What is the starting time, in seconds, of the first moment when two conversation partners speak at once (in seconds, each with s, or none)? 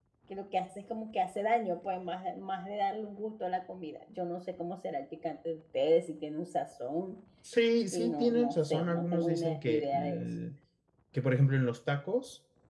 7.9 s